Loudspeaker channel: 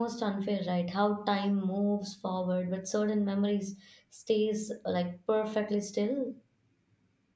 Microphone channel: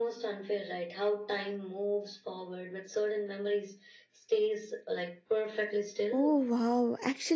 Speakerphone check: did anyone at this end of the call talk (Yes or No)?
Yes